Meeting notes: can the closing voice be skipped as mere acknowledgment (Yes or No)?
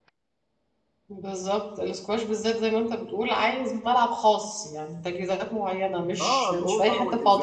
No